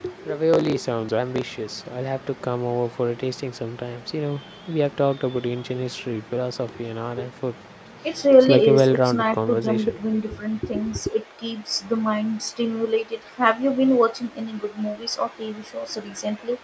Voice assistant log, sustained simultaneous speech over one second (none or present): present